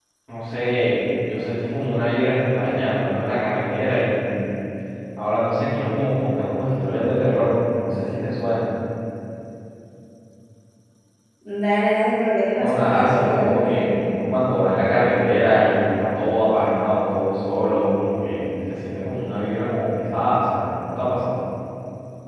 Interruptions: present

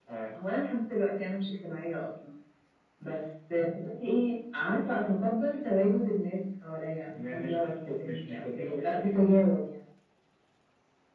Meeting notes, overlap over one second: present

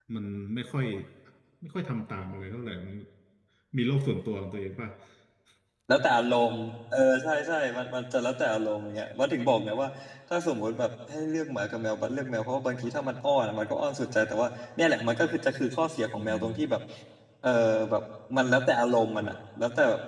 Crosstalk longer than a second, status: none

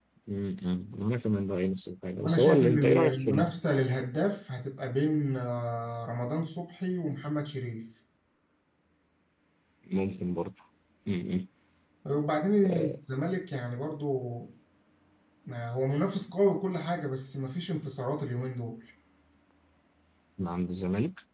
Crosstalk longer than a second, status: present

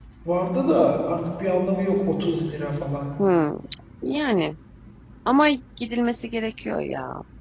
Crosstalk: none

